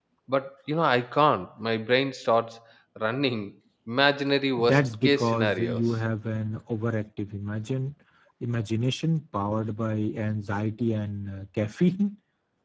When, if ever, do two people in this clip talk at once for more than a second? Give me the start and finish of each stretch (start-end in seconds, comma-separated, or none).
4.6-5.8